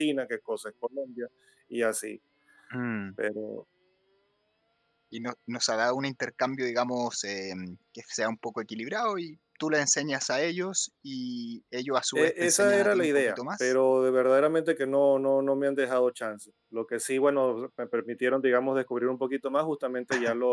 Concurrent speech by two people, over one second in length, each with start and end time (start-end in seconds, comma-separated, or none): 12.2-13.7